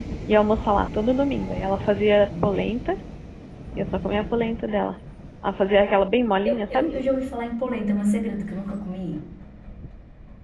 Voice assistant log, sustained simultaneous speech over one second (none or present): none